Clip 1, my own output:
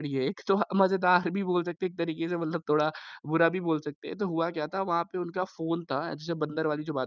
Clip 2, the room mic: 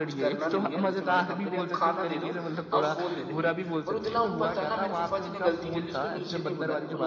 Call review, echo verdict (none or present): present